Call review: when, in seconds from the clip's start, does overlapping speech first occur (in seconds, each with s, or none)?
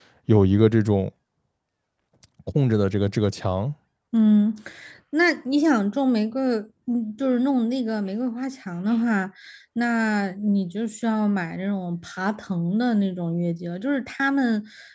none